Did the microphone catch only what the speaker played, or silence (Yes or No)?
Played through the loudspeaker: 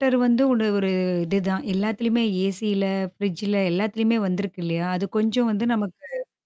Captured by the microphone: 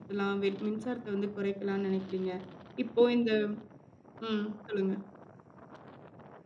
No